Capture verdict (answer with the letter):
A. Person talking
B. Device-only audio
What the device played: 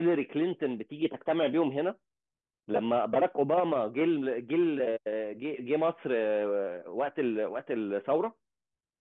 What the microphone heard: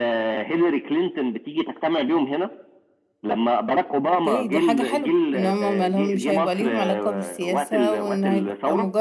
A